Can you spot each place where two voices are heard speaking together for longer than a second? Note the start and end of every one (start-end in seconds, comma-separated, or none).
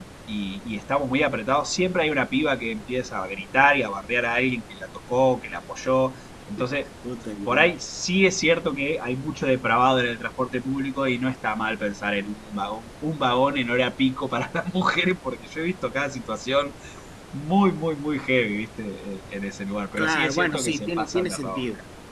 20.0-21.6